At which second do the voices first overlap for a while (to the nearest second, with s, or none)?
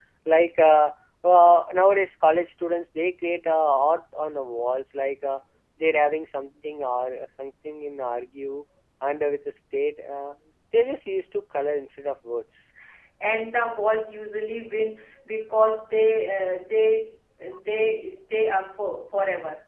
none